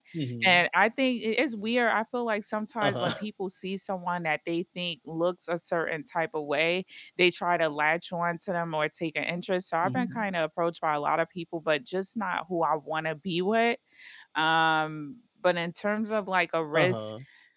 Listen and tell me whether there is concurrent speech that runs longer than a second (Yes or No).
No